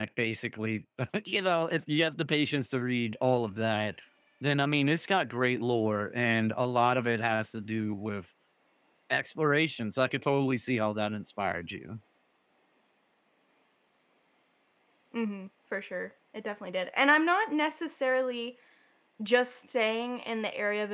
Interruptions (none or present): none